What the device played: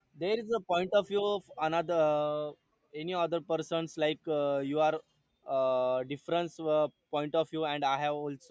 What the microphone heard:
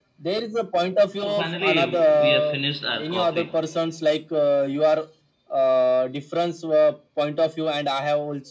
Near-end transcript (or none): So finally, we have finished our coffee.